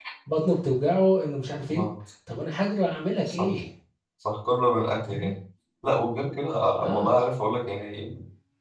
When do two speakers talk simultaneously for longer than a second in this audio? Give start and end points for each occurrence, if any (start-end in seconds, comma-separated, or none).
none